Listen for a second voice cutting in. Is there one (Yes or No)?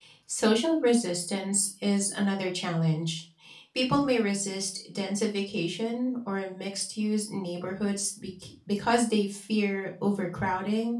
No